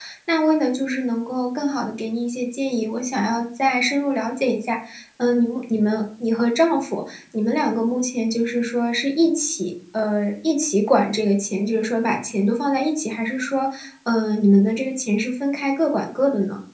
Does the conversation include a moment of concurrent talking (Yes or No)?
No